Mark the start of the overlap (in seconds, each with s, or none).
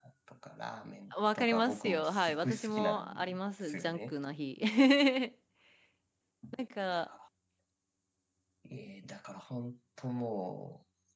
1.1 s